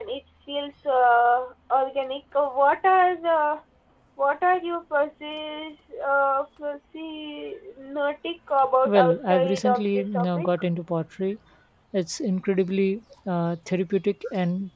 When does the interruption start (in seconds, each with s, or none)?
8.8 s